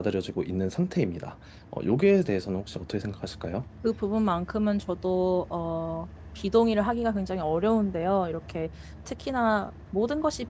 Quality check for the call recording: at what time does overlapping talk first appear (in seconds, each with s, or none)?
none